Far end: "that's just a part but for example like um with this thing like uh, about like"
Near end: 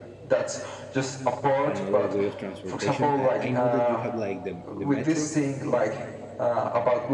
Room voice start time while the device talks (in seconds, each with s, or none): 1.6 s